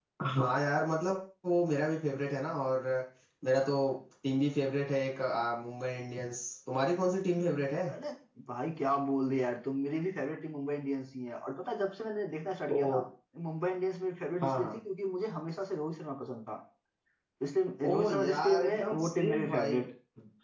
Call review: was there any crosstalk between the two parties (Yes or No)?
Yes